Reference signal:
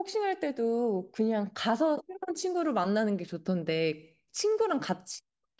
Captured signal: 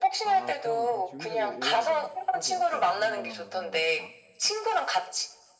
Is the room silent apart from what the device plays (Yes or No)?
No